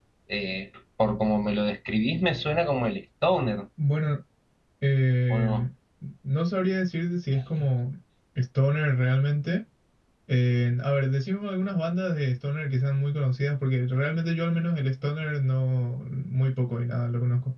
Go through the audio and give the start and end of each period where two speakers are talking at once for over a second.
none

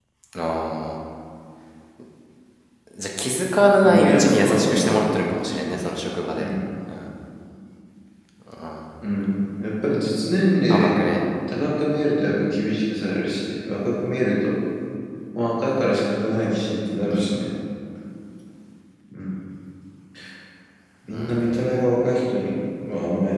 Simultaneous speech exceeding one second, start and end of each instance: 3.8-5.0

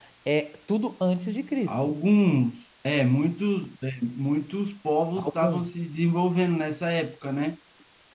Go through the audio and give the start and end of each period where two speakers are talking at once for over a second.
none

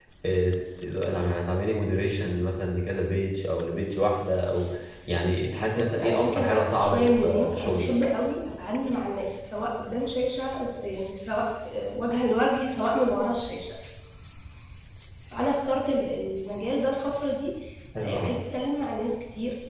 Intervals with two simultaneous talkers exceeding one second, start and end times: 5.6-7.9

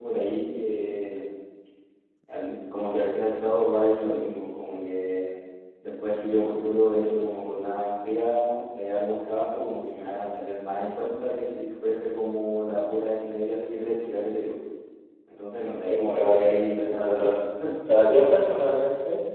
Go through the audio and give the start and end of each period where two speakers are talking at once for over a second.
15.9-17.3

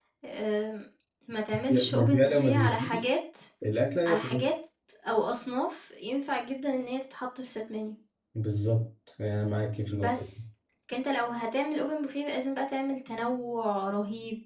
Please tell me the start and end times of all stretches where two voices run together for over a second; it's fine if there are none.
1.7-3.1

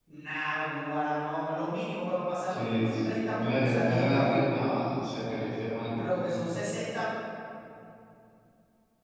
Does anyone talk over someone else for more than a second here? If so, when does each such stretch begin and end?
2.5-4.4

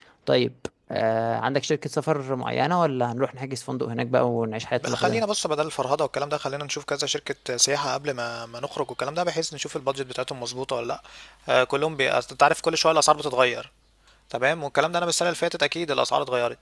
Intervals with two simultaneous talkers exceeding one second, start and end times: none

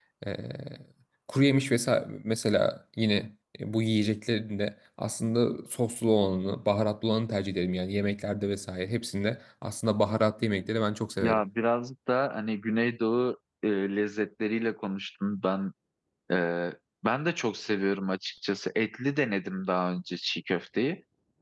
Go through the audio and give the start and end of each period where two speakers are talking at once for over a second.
none

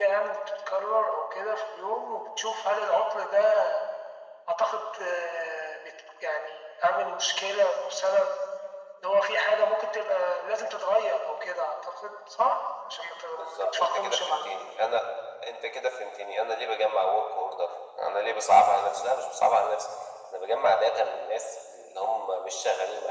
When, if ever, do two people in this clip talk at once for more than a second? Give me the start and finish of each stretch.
13.3-14.7

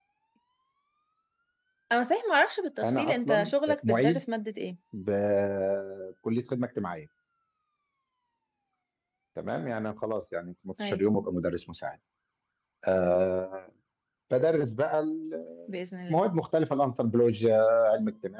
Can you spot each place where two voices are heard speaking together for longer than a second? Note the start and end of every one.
2.8-4.2

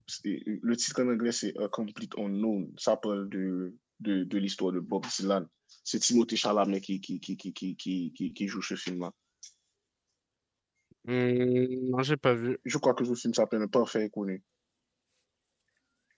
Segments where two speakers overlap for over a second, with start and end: none

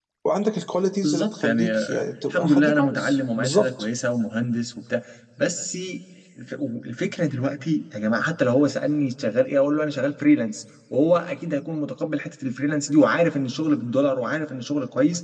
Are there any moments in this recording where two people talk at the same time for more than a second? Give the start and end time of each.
1.0-3.9

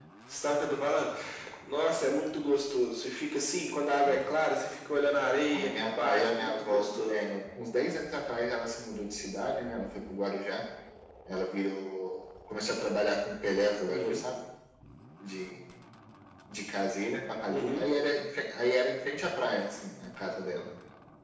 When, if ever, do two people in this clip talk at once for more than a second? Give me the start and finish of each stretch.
5.5-7.3

